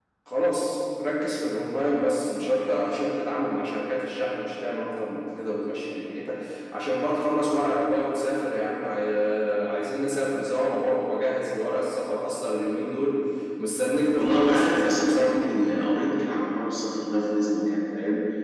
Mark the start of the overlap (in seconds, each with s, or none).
14.2 s